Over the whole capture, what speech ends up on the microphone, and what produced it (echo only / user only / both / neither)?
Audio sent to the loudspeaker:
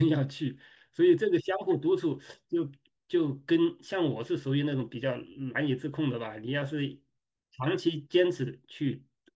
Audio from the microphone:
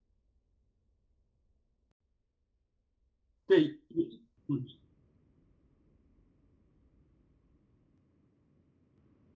user only